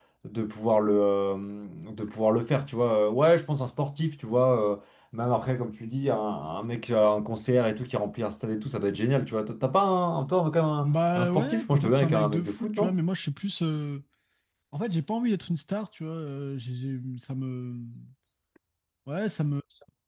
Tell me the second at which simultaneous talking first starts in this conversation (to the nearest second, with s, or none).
11 s